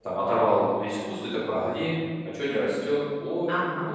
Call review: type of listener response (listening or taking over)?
taking over